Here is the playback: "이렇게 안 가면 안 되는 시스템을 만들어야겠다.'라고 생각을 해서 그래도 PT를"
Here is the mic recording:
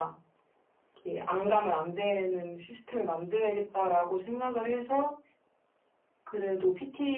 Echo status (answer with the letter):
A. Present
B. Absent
A